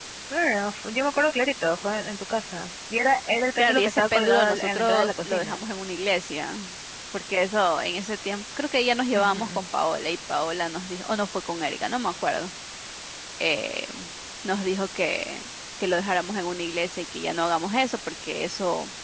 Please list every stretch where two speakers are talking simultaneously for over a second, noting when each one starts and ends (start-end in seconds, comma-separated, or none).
3.6-5.6